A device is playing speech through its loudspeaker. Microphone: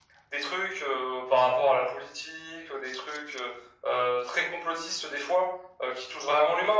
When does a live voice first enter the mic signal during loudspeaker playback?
none

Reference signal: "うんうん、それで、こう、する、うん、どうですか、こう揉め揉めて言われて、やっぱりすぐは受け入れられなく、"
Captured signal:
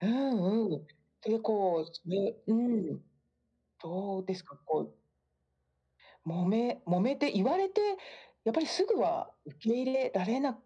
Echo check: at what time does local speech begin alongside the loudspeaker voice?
none

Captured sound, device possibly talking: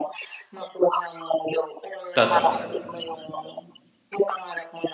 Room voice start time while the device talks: 2.2 s

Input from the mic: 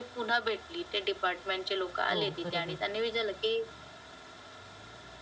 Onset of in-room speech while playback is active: 2.1 s

